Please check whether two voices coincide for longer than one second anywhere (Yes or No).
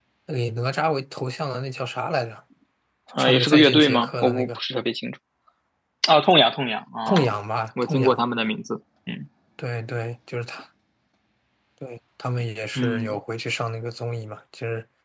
Yes